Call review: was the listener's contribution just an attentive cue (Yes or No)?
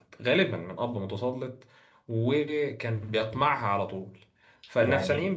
Yes